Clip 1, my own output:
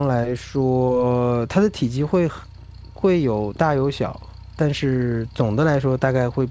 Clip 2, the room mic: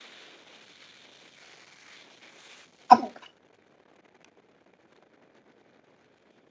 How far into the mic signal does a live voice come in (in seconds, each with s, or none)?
2.9 s